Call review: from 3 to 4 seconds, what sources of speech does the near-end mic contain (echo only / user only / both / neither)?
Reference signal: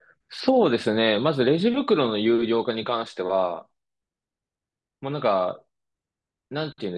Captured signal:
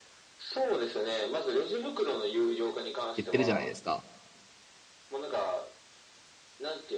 both